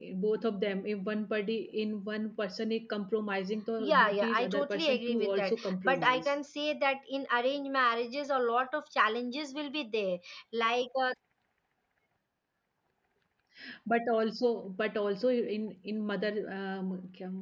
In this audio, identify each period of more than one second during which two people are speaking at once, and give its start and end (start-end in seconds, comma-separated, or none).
3.8-6.3